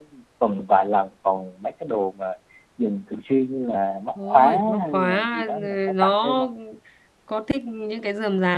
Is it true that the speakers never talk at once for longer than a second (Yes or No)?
No